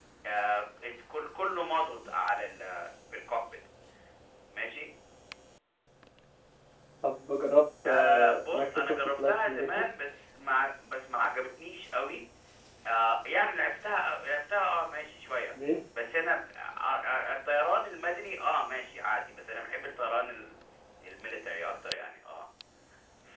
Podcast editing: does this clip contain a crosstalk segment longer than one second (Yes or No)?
Yes